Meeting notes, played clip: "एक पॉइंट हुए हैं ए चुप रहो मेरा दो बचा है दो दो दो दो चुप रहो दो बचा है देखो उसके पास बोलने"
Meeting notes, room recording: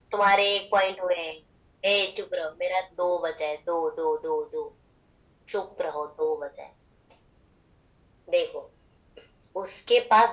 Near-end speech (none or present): none